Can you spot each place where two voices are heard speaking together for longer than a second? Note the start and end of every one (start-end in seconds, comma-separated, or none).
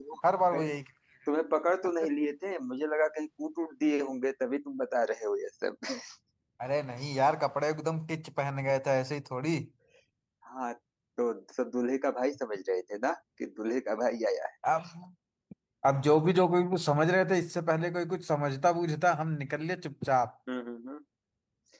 none